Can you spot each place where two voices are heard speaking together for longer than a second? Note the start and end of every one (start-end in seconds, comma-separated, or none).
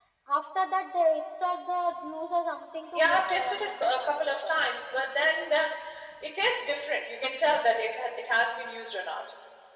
2.9-4.5